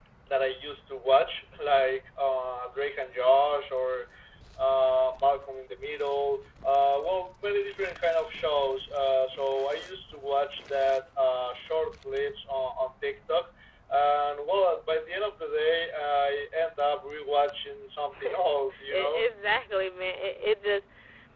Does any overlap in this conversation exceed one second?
No

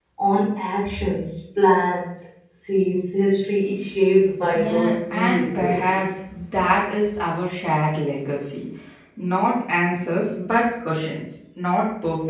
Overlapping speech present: Yes, from 4.5 s

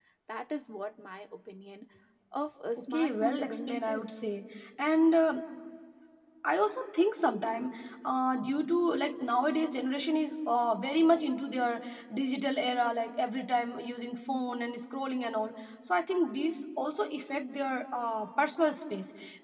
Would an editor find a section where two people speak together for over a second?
Yes, from 2.9 s

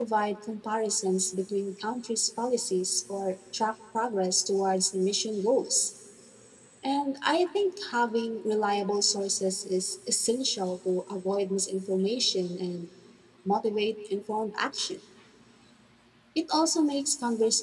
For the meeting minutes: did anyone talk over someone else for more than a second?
No

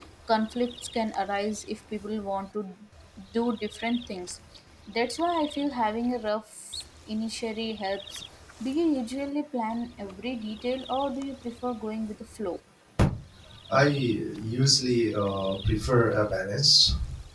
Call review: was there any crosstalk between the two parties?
No

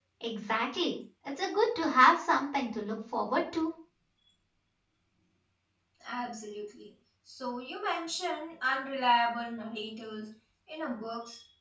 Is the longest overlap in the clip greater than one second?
No

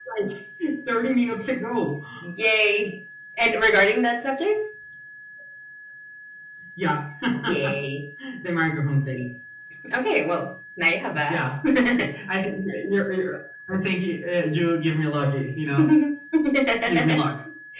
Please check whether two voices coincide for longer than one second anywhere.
No

